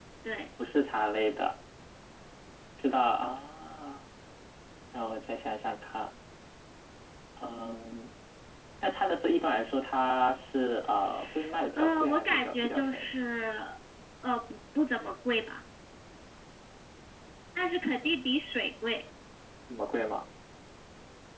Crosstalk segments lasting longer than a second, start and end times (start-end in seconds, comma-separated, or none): 11.7-13.1